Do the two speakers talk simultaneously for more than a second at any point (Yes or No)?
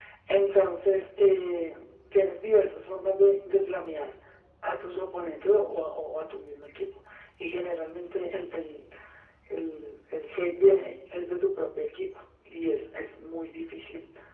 No